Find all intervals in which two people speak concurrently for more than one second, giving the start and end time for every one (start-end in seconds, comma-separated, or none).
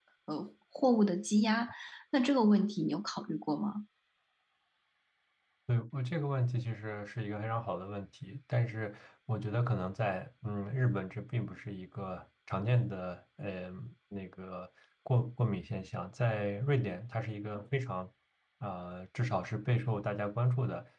none